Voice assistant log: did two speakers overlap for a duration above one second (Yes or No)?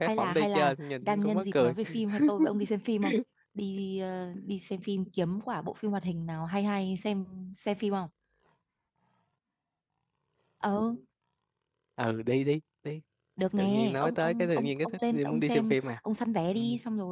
Yes